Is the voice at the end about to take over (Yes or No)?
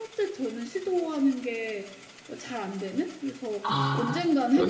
Yes